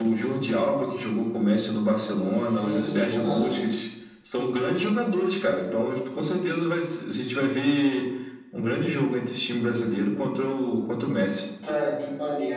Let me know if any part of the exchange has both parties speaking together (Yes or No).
Yes